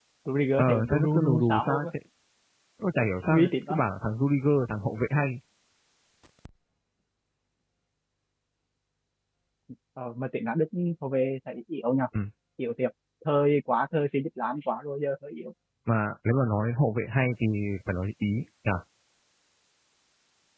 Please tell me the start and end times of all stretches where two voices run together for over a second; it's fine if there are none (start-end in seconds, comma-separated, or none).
0.6-1.9